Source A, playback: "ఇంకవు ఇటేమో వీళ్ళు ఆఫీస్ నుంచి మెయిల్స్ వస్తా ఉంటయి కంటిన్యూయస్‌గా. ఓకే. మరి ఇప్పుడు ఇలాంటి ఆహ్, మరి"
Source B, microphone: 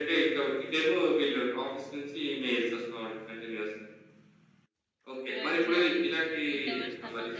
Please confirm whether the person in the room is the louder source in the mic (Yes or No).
No